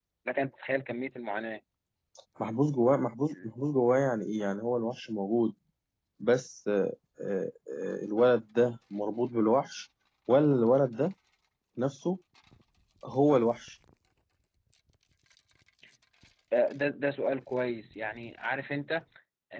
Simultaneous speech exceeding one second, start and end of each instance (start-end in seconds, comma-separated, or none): none